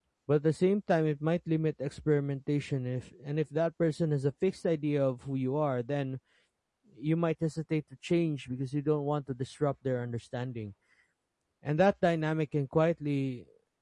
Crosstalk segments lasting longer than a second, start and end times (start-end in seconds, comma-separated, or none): none